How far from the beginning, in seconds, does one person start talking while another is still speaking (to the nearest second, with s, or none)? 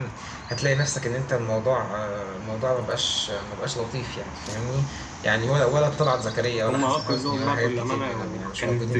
7 s